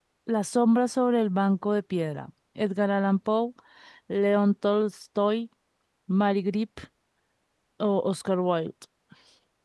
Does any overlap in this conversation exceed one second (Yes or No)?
No